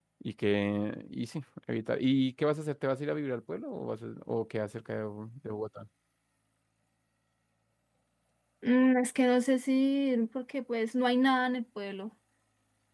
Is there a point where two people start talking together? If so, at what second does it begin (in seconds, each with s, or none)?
none